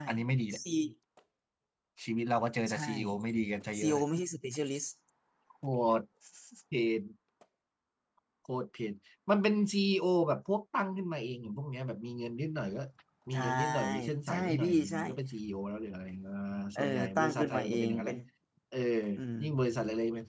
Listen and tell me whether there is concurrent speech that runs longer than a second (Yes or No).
Yes